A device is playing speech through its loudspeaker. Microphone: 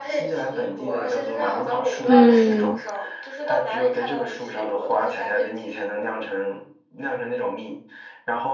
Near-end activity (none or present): present